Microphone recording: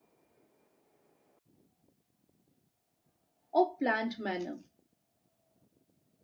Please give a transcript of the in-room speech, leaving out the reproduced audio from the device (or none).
or planned manner.